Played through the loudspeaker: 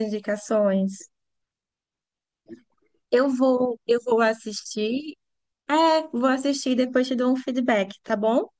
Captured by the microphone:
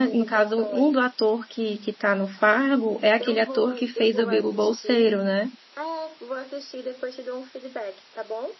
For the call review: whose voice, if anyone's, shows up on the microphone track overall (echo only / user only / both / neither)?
both